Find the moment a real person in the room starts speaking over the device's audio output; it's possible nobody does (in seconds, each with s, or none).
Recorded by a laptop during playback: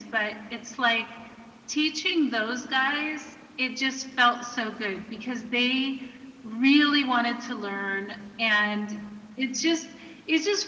none